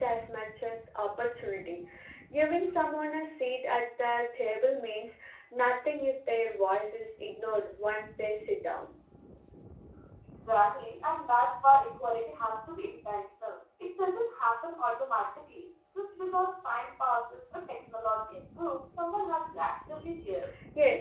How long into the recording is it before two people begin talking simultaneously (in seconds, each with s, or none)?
none